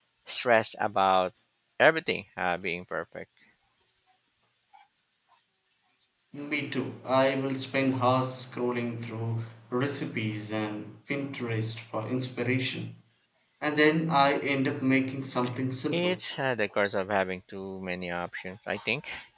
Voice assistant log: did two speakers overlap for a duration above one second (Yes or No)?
No